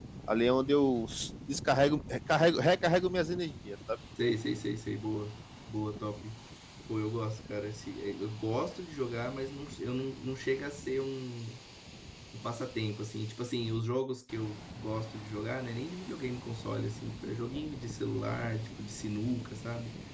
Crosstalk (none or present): none